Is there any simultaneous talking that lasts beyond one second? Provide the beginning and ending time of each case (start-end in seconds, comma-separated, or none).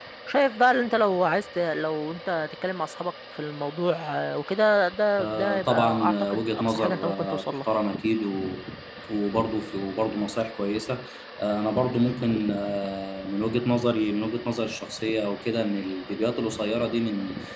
5.2-7.7